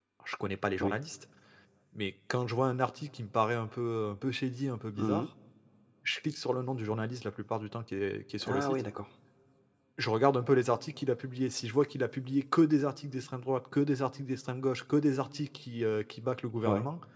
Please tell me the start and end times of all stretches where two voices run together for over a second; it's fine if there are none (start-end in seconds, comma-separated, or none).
none